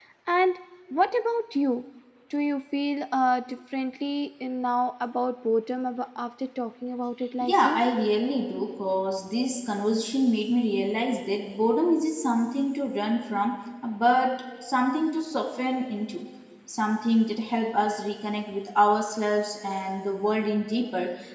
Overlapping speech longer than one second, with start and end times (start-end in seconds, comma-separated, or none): none